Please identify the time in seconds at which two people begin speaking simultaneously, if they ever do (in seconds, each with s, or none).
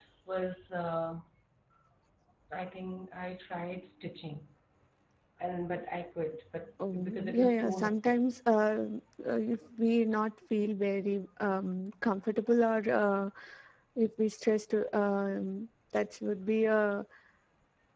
6.8 s